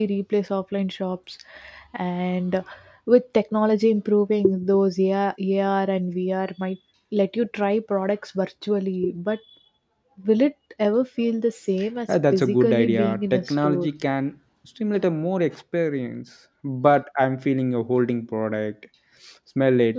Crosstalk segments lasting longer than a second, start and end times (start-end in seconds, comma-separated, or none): 12.1-13.9